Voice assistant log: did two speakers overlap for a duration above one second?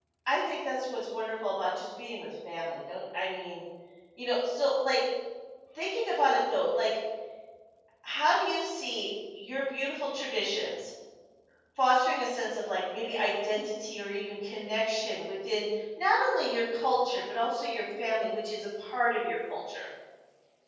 No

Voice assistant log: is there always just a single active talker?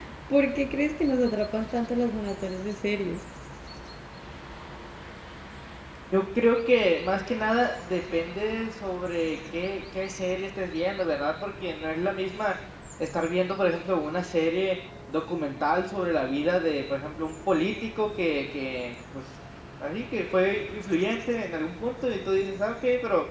Yes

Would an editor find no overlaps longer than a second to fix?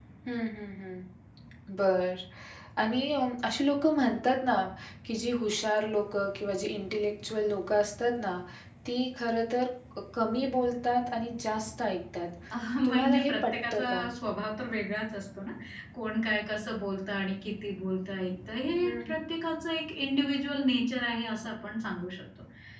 No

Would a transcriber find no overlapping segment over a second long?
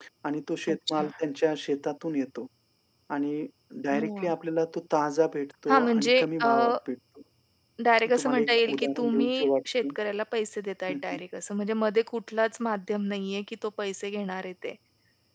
No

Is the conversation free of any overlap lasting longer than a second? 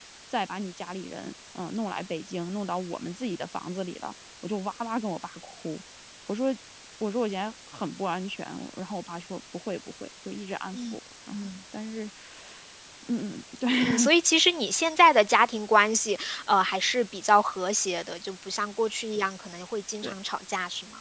Yes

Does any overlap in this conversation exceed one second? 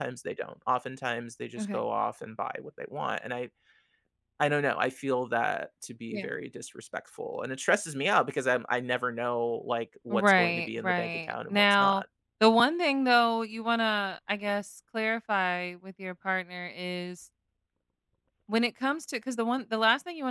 Yes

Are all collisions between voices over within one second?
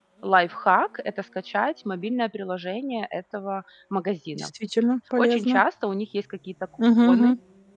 Yes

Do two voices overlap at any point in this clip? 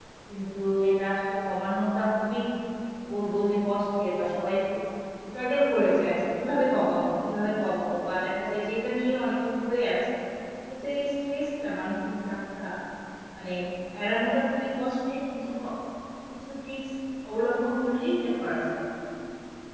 No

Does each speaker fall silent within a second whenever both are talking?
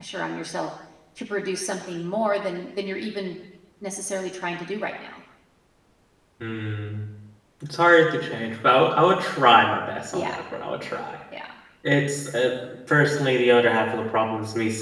Yes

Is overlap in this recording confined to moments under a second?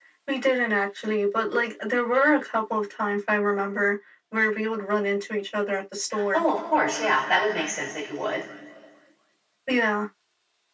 Yes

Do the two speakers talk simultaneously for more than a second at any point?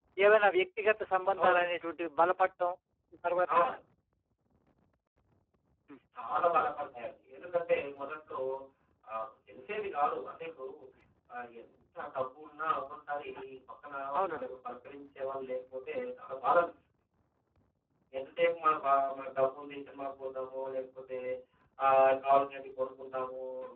No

